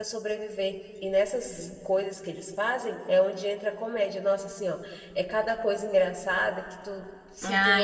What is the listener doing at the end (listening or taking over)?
taking over